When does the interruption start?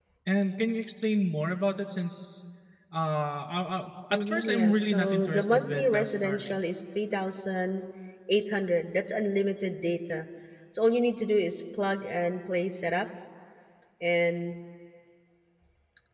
4.1 s

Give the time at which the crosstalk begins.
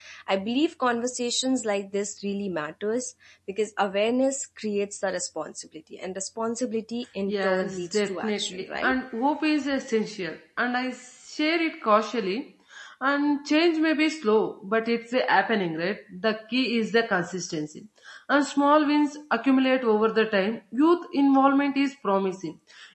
7.3 s

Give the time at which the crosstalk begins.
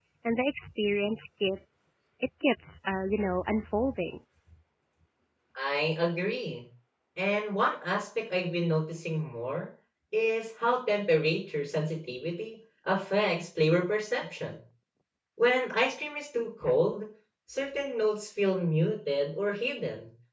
none

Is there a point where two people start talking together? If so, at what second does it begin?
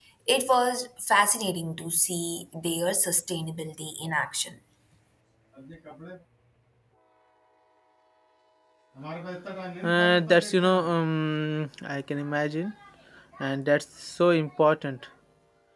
none

